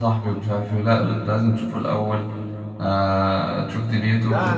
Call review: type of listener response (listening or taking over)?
taking over